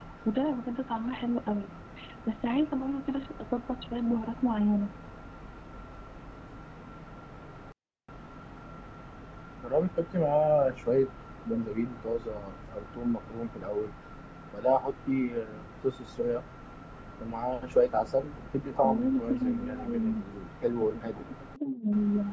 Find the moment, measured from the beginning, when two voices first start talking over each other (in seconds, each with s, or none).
18.8 s